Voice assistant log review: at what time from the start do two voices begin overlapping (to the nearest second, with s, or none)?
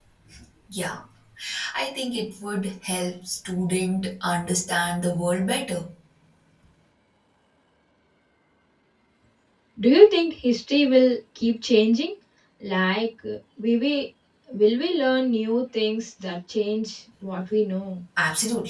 none